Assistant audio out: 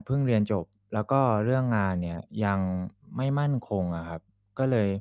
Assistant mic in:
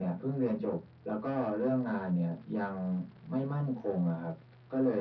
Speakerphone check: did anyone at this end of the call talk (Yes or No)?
No